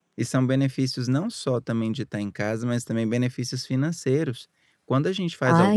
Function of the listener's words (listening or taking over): listening